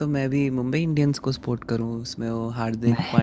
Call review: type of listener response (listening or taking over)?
listening